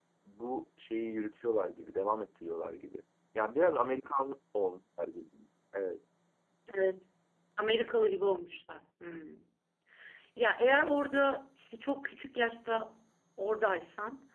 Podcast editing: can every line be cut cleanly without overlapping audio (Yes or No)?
Yes